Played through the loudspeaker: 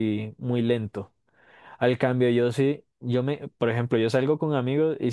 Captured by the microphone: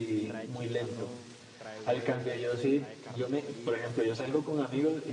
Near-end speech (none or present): present